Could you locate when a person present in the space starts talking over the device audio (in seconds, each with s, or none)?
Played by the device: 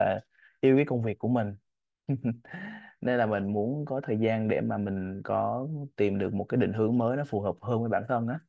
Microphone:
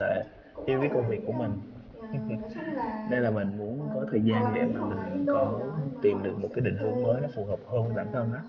0.5 s